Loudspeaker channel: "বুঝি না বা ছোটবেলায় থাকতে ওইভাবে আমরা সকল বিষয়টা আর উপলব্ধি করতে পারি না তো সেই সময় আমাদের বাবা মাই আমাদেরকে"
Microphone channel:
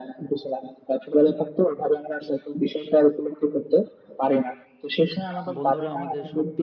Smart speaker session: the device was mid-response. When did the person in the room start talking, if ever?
5.5 s

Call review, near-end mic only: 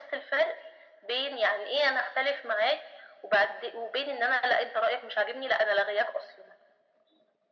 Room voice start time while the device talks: none

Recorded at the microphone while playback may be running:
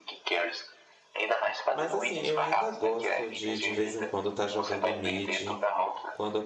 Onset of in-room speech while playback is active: 1.7 s

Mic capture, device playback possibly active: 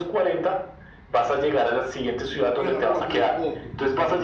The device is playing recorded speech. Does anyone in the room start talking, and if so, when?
2.5 s

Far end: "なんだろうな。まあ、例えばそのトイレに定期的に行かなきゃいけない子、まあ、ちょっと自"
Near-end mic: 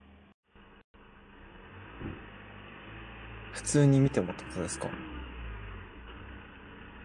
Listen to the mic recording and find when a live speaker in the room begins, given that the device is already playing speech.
3.5 s

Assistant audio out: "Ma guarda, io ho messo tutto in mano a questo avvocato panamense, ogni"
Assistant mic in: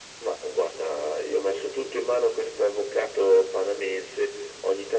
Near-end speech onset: none

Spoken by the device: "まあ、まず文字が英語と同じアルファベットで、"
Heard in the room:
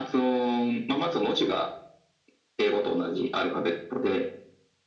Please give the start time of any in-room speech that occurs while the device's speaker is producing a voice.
none

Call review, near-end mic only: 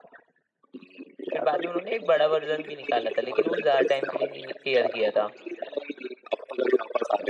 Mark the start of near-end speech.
1.3 s

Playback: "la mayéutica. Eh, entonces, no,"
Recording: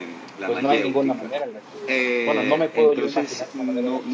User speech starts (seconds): 0.4 s

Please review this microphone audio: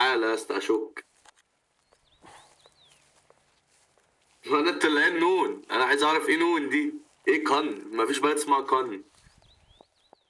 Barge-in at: none

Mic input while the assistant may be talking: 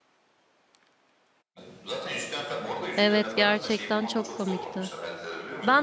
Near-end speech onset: 2.9 s

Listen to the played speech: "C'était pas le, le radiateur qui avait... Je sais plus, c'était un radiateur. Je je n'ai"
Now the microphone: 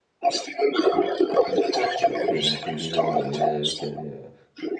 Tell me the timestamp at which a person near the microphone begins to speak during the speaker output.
2.0 s

